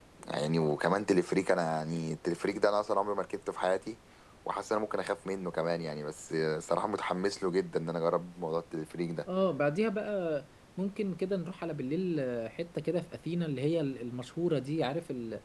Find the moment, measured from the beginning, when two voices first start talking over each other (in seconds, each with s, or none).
none